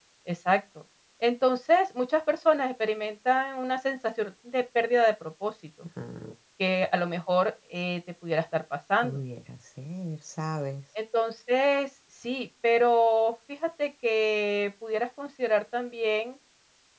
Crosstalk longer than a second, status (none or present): none